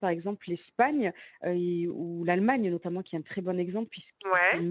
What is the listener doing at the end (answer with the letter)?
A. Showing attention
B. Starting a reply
A